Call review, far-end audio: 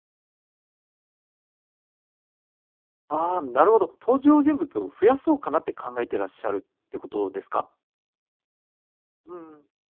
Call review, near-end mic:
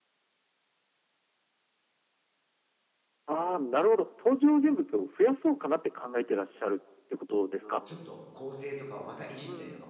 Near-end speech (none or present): present